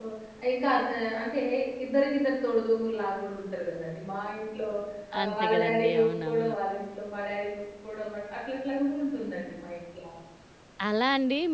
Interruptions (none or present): present